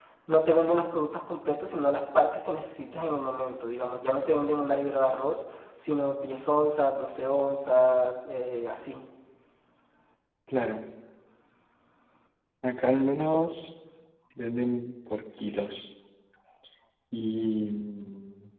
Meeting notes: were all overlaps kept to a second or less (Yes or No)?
Yes